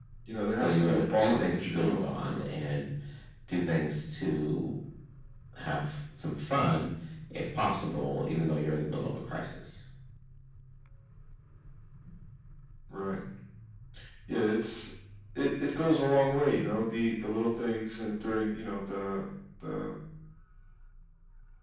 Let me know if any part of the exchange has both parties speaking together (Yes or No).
Yes